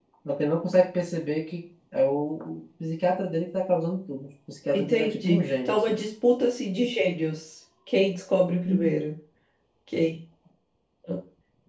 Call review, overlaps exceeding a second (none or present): present